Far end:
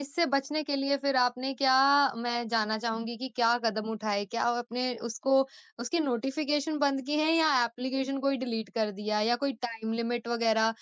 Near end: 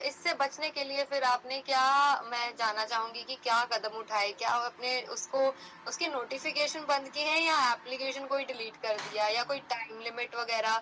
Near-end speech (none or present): none